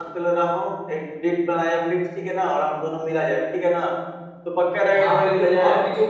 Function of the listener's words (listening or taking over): taking over